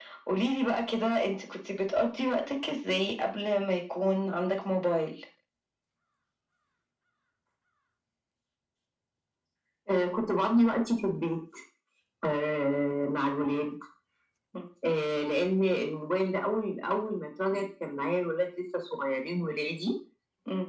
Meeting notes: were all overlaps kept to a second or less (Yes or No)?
Yes